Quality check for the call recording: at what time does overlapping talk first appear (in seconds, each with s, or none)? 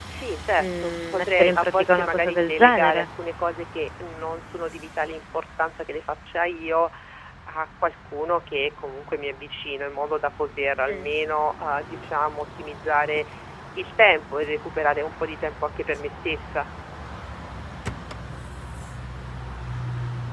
0.6 s